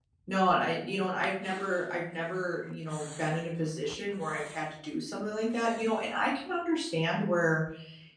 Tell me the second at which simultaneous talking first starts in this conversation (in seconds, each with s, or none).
none